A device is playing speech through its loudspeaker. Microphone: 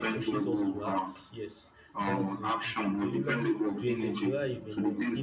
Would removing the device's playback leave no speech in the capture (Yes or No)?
No